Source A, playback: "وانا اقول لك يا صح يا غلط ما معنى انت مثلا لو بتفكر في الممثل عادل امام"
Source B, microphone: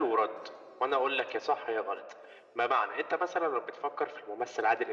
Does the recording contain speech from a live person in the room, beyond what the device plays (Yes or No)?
No